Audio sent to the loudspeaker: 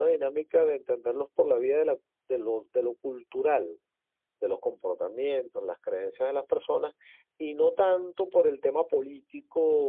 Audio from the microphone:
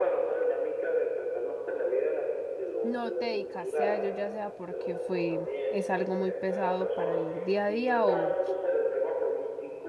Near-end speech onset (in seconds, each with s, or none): 2.8 s